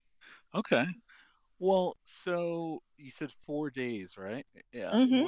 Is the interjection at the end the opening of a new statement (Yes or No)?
No